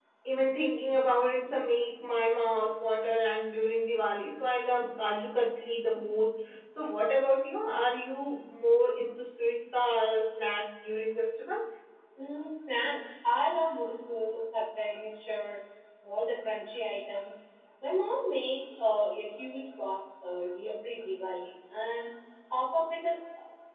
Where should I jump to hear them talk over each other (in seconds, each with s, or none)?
none